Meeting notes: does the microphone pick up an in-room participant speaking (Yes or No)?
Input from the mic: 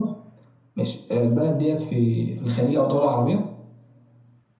No